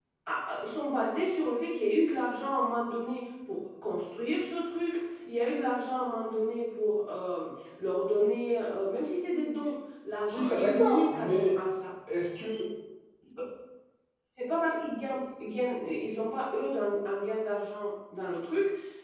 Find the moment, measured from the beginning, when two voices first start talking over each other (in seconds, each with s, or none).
10.3 s